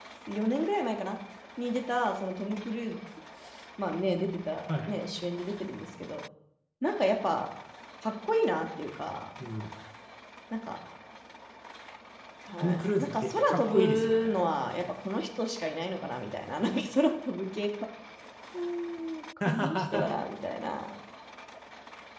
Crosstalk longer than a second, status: present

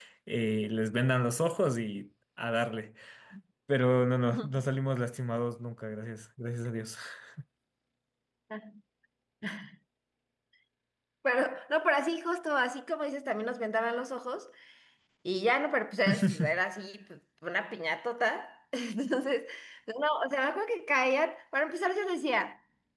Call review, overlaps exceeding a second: none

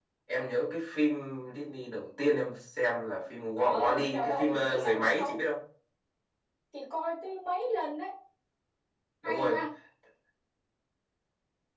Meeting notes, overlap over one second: present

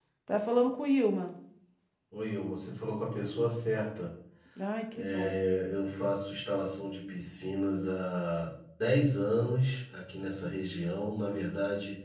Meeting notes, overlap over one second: none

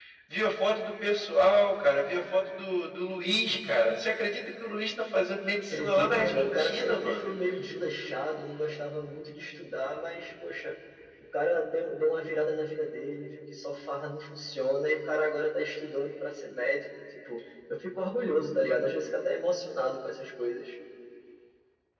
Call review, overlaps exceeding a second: present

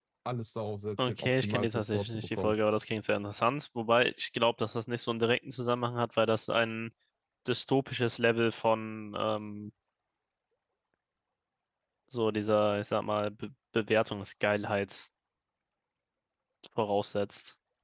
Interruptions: present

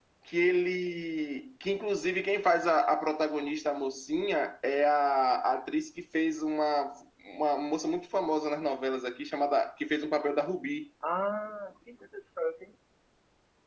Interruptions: none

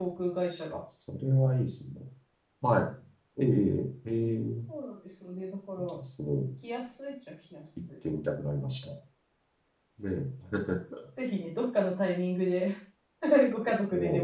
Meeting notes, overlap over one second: none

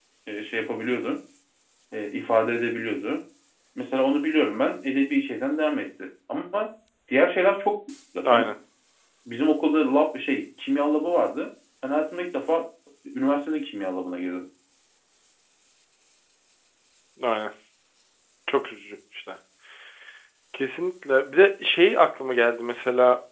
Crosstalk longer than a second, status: none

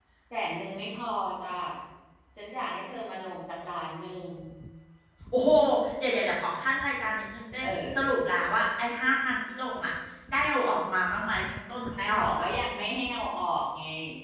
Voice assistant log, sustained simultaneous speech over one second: none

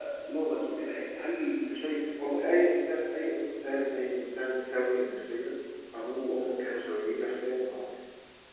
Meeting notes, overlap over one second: none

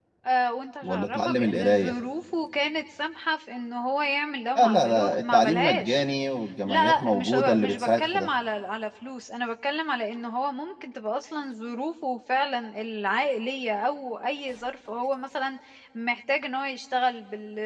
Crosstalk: present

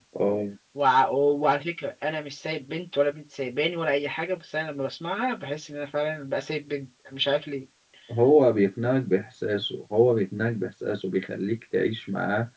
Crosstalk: none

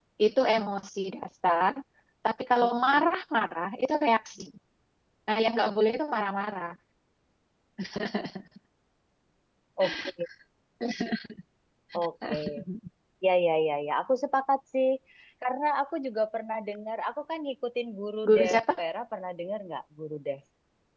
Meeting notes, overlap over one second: none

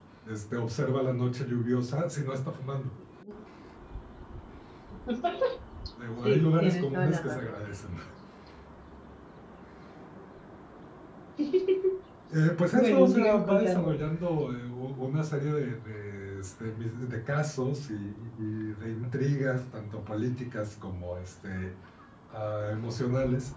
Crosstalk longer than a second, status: present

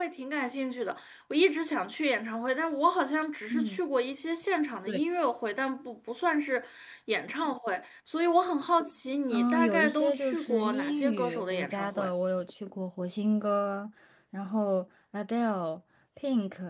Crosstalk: present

